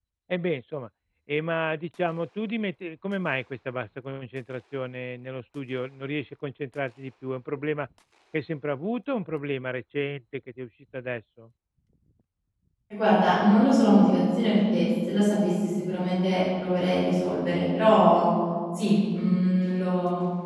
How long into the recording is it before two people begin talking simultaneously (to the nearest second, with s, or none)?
none